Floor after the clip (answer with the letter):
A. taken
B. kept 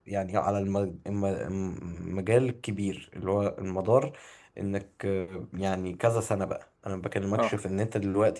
B